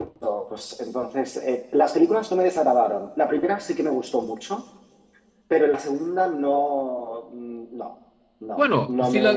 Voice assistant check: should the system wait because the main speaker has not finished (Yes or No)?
No